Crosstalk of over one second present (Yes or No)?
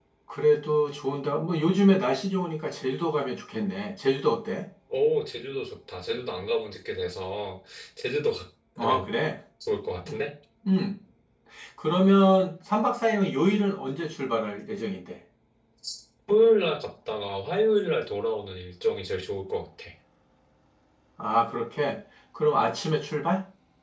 No